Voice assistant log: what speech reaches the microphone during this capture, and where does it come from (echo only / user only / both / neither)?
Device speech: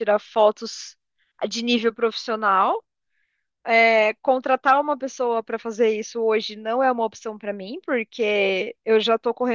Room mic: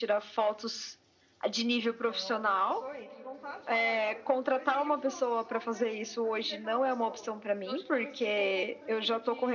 both